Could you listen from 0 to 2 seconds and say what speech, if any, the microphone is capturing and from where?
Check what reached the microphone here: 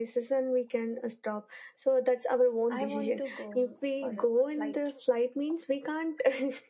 echo only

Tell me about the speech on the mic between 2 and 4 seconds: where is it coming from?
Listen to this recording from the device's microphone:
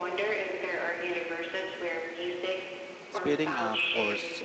both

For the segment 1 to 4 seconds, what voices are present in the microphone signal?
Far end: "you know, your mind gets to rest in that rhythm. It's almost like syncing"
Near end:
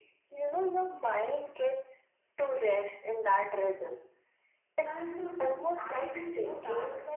echo only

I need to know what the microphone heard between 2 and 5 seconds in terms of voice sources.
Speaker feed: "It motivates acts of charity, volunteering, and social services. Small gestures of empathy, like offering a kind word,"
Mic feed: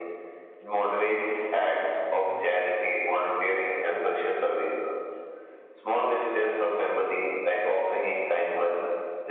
both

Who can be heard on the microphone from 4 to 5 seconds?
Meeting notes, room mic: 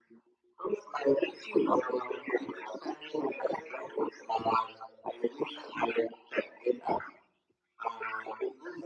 echo only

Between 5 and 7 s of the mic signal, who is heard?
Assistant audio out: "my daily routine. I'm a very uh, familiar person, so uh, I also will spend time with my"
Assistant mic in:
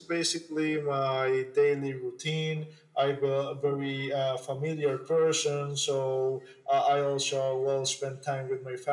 echo only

